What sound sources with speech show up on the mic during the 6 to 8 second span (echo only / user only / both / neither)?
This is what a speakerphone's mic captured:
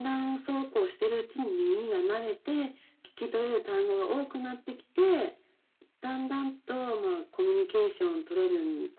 echo only